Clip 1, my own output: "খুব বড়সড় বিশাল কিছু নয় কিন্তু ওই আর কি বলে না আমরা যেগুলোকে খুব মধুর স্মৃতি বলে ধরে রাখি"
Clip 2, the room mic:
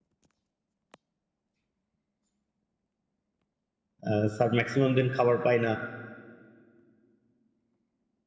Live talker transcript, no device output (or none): আহ, স্যার ম্যাক্সিমাম দিন খাবার পায় না